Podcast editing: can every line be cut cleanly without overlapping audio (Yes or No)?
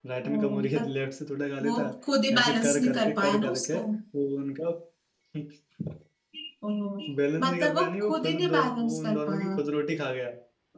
No